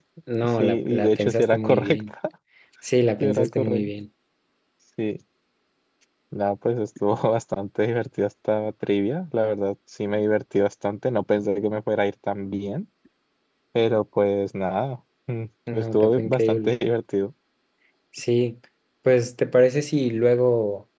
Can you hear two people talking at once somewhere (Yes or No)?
Yes